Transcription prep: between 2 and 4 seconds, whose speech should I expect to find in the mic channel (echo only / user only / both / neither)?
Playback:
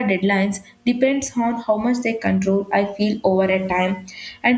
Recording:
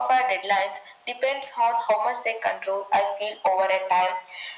echo only